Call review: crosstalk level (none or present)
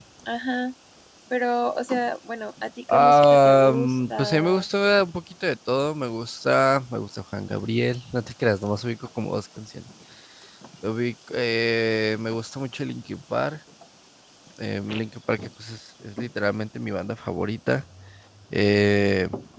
present